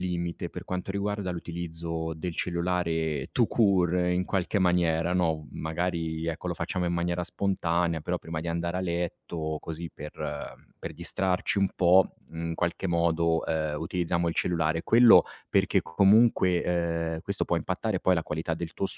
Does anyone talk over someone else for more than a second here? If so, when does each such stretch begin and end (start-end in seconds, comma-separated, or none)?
none